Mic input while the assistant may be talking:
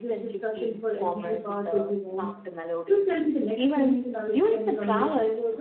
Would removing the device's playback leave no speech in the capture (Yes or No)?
No